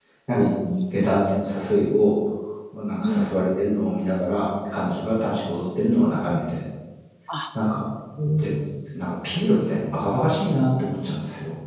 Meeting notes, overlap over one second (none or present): none